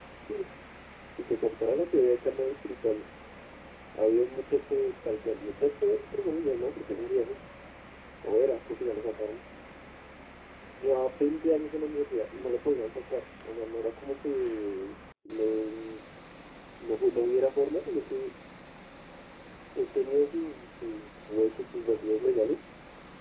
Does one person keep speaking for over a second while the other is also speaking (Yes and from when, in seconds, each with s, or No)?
No